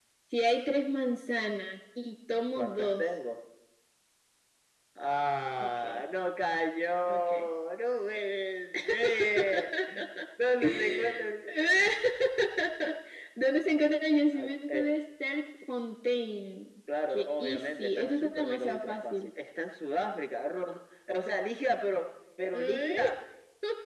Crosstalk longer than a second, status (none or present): present